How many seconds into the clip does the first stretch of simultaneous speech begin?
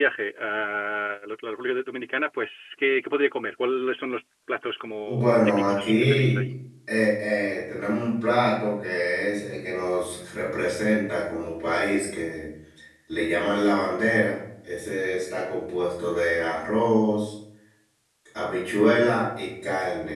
5 s

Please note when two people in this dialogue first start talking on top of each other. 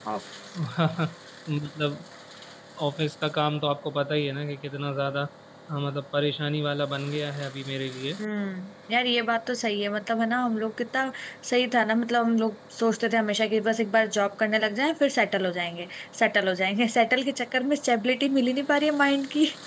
none

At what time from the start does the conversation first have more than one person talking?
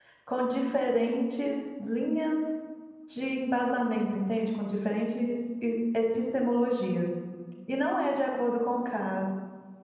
none

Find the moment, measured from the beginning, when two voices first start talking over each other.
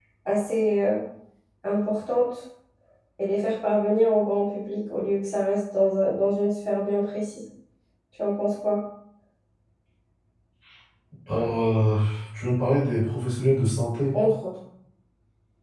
none

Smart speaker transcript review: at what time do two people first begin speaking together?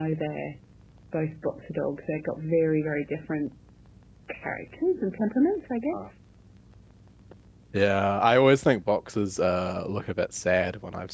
none

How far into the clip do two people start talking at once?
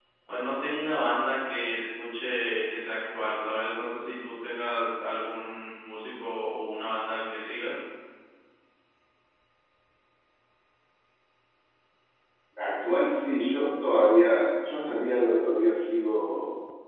none

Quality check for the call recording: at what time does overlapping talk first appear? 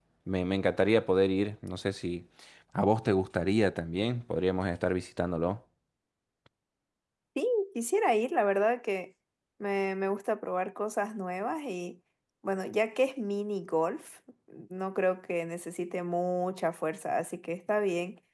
none

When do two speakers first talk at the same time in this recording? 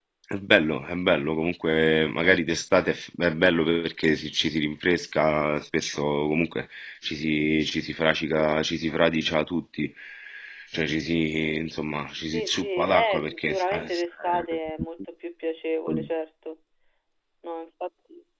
12 s

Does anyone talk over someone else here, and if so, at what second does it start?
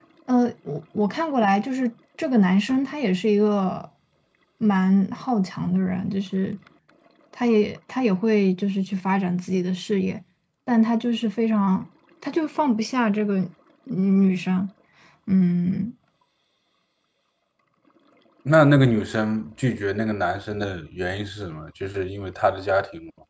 none

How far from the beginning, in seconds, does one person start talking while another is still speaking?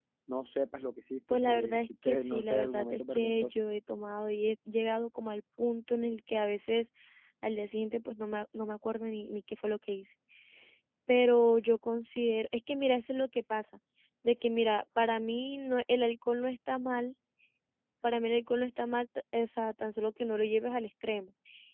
1 s

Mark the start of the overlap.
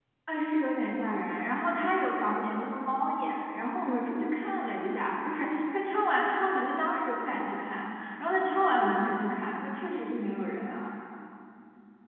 none

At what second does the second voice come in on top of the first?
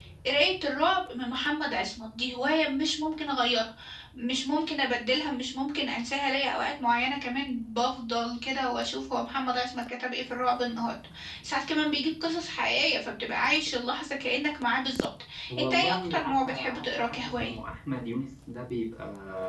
16 s

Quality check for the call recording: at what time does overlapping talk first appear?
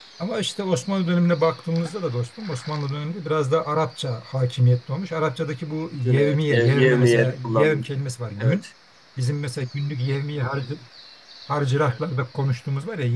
6 s

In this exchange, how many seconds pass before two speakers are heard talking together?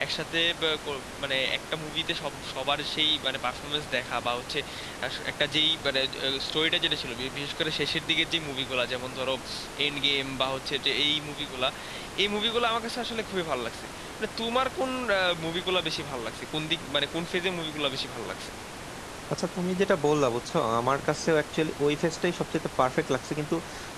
none

